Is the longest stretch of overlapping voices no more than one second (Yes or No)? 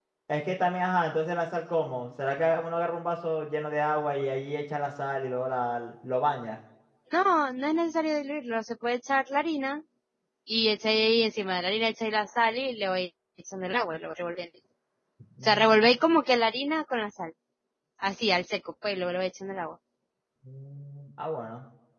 Yes